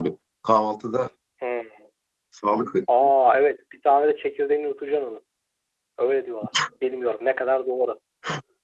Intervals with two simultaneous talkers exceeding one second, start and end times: none

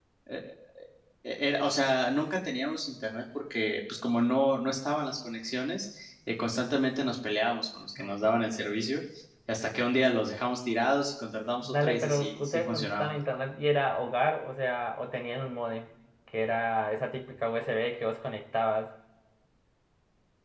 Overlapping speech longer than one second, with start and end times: 11.6-13.1

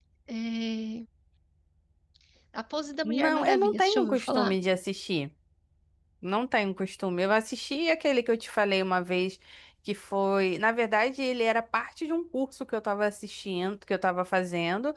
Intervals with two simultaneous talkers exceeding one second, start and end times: 3.0-4.5

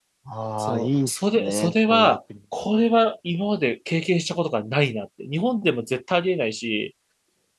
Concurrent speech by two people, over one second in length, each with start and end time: 0.6-2.2

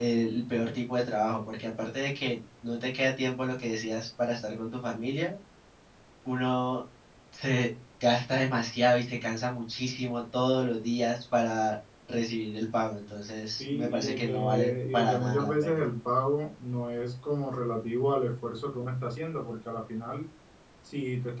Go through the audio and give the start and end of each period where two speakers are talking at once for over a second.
13.6-15.9

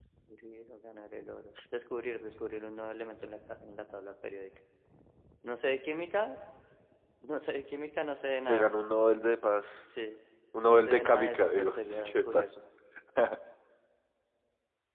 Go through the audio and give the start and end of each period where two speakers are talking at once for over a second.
10.6-12.4

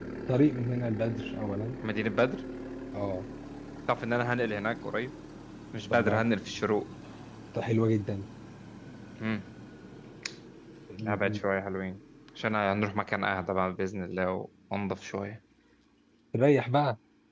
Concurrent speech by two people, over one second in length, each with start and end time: none

